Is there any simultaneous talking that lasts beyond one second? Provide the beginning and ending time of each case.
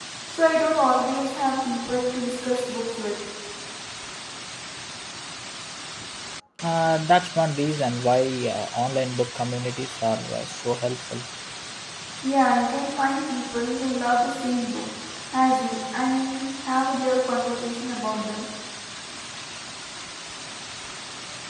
none

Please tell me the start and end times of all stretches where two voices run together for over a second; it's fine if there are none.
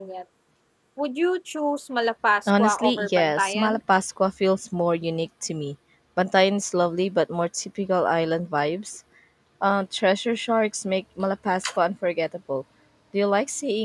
2.5-3.8

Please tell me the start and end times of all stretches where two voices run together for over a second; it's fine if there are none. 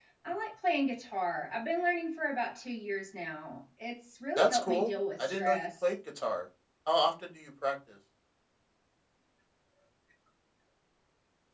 4.4-5.9

